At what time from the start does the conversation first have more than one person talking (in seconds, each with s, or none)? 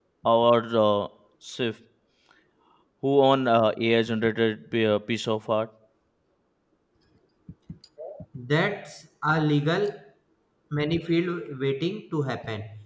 none